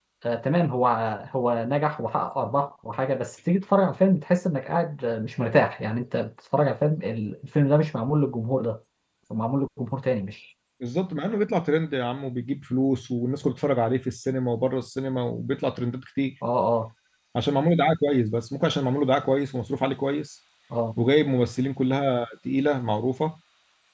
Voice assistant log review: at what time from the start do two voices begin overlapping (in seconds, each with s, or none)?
none